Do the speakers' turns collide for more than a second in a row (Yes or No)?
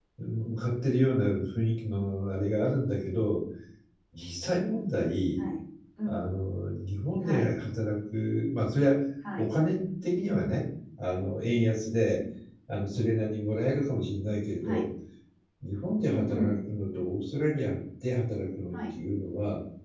No